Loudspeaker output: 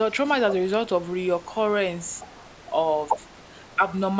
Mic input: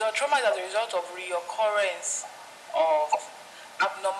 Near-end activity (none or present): none